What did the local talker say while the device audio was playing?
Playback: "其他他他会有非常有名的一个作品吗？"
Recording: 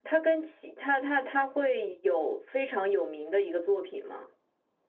none

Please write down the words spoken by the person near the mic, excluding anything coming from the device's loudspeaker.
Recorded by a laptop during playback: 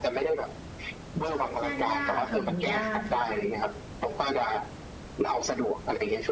ชอบย่างย่างค่ะหมูย่างค่ะ

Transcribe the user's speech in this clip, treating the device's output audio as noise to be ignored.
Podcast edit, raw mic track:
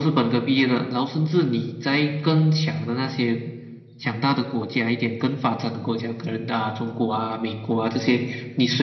none

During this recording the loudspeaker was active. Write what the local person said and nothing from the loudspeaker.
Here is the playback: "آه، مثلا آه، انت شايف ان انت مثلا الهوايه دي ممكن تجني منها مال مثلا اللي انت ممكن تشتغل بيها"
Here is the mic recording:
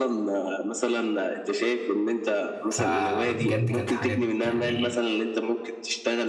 فبجد كانت حاجات يعني

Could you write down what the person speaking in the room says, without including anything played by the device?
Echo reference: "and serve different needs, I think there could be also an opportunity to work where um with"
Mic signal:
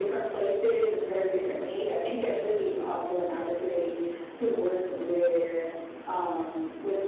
none

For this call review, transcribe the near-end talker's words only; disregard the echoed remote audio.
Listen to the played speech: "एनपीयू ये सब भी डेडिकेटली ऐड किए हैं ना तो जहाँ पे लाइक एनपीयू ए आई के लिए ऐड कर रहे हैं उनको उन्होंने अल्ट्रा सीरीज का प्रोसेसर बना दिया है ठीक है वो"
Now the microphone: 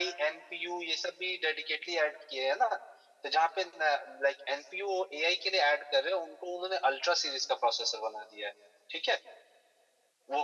none

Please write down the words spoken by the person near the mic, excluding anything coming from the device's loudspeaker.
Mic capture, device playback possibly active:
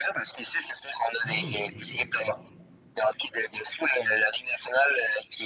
Ah oui, ok.

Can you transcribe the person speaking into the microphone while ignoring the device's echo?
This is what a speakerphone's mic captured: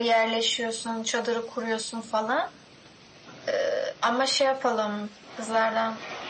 none

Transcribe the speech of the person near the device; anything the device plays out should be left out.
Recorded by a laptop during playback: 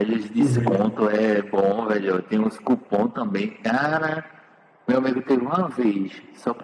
Uhum.

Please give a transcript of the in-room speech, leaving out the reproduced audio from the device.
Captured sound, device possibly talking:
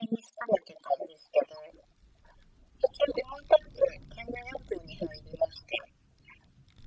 none

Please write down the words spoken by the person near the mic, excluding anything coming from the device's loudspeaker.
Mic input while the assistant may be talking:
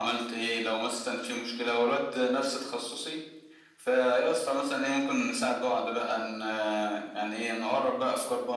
none

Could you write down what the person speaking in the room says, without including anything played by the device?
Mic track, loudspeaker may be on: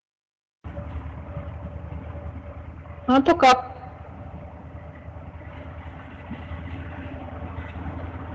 हाँ तो काफ

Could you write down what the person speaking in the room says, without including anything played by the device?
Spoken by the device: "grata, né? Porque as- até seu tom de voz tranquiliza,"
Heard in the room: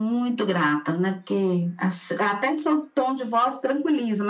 none

